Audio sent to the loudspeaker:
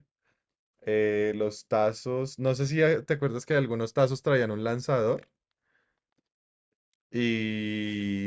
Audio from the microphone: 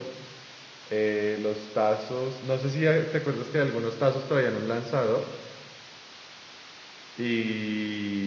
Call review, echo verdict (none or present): present